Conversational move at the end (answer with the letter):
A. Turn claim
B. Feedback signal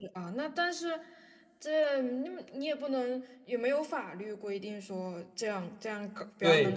A